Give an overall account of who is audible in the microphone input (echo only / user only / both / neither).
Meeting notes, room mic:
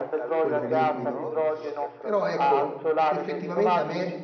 both